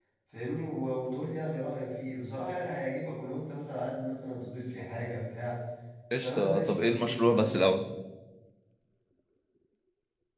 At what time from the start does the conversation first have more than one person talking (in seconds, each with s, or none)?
6.2 s